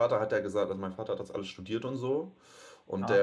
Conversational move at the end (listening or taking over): listening